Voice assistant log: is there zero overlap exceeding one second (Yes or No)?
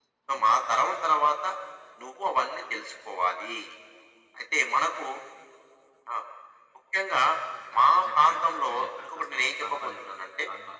No